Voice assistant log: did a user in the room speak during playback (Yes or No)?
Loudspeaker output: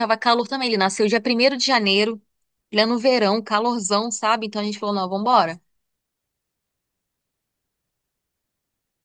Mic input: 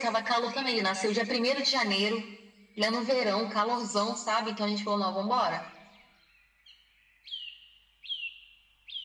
No